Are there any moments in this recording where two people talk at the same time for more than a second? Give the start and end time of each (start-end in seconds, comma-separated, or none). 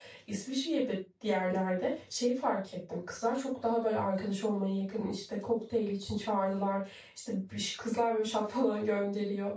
none